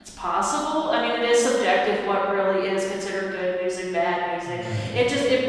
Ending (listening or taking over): listening